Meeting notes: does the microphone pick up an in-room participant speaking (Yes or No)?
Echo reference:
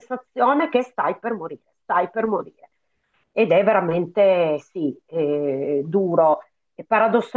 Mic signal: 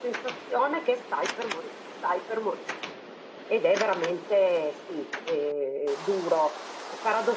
No